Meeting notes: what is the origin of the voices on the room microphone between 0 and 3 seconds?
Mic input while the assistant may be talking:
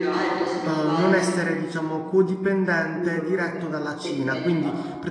both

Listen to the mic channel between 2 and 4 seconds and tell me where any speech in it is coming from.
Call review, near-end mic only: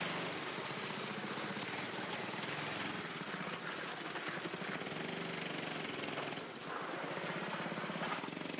neither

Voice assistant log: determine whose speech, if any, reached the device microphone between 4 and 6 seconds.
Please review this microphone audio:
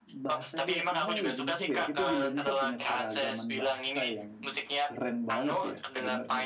both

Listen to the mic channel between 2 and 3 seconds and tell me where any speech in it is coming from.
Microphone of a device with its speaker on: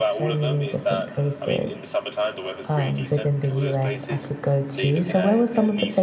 both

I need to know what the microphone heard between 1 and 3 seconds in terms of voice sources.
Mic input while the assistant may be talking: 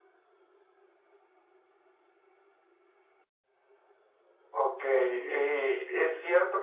neither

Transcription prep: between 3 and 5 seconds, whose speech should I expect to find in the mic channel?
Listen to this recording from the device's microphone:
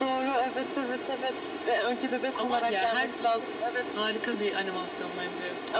echo only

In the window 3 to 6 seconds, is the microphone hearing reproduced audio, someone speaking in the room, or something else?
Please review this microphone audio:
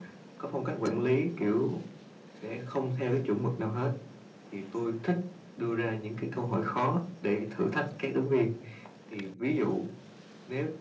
echo only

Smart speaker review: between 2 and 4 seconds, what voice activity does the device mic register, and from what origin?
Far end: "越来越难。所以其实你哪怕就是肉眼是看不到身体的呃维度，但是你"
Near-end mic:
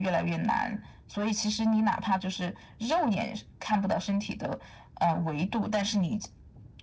echo only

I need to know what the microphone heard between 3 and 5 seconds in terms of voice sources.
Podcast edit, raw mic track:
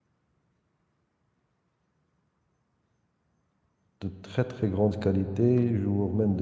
user only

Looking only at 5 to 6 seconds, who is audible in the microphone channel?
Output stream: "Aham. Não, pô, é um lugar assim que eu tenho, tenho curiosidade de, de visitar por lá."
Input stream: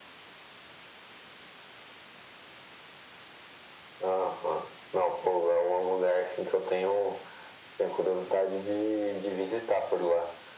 echo only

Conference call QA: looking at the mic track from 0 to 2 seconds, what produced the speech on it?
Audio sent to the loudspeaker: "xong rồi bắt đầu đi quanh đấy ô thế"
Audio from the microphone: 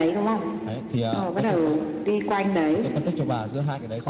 both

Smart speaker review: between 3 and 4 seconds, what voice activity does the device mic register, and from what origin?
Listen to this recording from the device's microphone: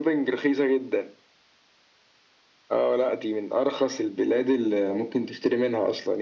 echo only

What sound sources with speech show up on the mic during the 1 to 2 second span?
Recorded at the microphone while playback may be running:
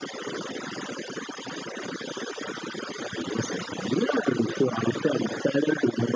neither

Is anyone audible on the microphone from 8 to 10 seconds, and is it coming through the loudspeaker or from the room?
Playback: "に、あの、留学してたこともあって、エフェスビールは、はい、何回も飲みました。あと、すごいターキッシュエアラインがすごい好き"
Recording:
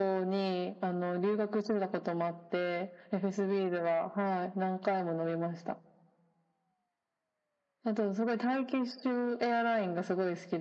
echo only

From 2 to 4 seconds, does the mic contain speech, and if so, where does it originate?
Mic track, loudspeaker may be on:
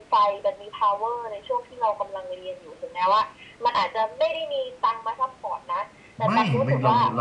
echo only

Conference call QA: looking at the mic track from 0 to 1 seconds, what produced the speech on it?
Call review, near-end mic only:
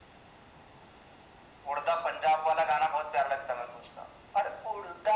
neither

